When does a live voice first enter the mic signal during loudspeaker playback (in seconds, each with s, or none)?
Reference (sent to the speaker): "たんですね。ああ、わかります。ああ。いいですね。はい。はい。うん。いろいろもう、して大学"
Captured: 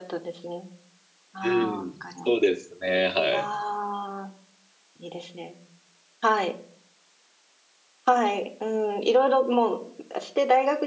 1.4 s